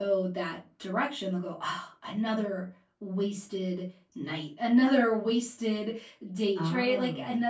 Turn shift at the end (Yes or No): No